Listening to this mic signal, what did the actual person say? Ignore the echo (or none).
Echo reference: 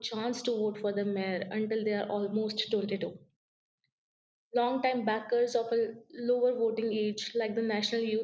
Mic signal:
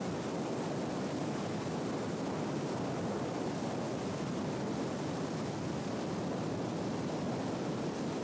none